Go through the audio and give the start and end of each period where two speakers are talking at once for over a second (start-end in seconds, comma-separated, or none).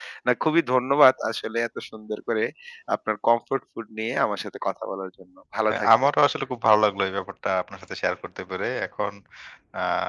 none